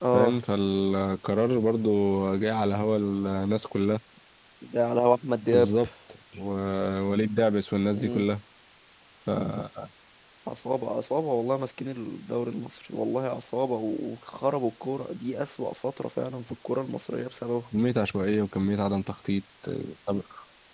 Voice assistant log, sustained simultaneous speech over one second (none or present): none